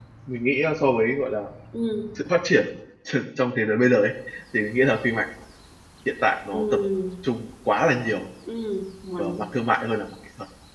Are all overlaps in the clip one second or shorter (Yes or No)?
Yes